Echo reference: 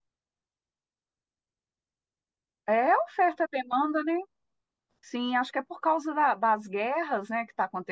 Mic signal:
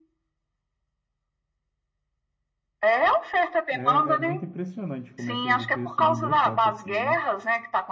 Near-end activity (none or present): present